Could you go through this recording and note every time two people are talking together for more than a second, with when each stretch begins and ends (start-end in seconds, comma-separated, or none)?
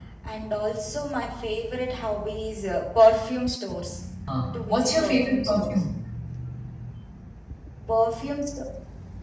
4.5-5.7